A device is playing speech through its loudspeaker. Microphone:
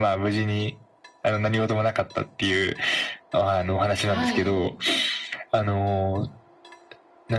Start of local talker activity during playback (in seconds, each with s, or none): 4.1 s